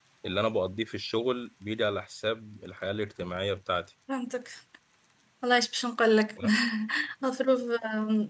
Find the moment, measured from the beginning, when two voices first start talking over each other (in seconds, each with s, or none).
none